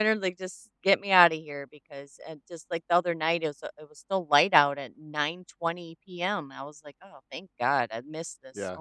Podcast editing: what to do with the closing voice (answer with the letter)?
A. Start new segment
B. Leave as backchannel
A